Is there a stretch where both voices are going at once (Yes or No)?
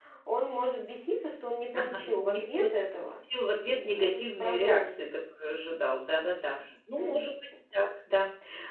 Yes